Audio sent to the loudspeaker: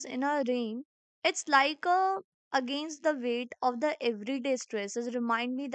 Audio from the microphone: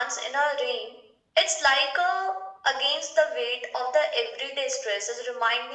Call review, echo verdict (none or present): present